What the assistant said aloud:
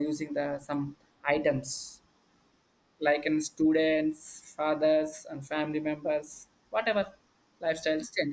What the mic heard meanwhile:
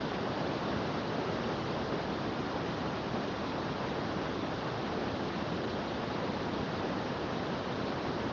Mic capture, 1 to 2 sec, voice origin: neither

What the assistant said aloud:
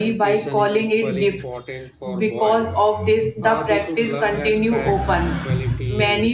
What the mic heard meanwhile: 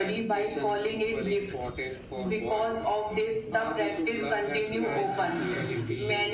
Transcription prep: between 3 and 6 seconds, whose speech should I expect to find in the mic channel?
both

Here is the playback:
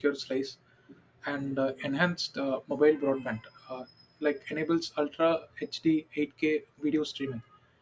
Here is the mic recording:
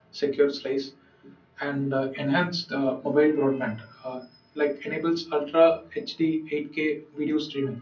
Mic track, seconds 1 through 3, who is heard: echo only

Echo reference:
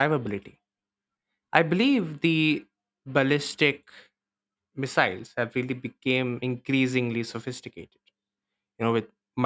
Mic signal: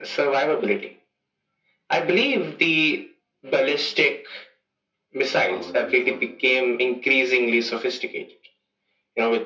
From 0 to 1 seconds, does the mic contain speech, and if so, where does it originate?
echo only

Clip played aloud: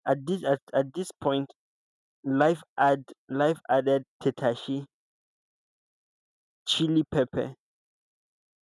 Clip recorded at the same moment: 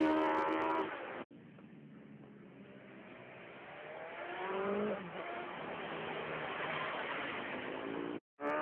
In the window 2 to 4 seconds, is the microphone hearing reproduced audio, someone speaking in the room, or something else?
neither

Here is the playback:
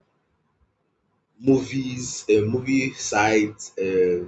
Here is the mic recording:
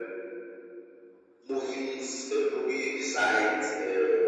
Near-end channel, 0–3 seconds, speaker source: echo only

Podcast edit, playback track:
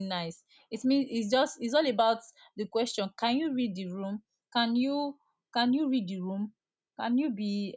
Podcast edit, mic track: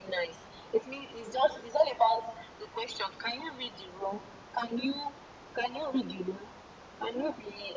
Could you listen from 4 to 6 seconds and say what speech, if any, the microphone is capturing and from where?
echo only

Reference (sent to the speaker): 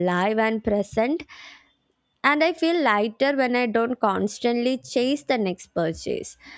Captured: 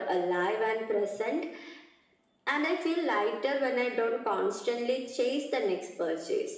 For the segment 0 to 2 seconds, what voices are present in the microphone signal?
echo only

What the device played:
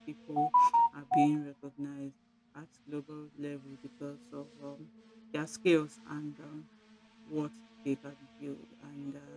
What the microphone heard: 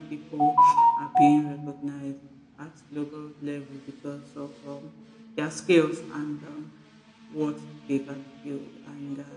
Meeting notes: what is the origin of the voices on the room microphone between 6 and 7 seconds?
echo only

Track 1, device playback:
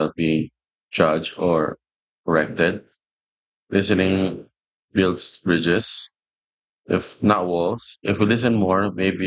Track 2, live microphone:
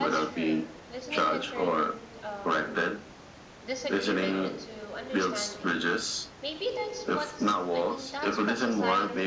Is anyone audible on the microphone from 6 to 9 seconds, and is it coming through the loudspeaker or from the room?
both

